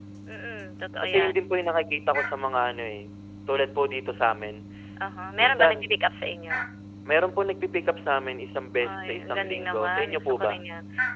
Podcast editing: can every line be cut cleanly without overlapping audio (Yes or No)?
No